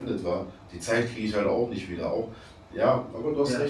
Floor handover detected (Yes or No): No